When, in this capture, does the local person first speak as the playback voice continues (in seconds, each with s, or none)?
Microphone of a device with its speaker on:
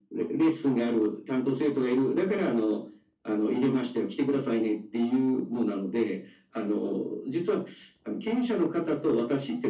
none